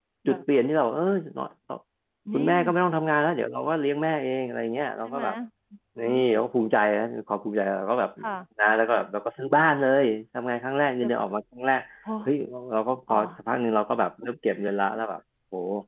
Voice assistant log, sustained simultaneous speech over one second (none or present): none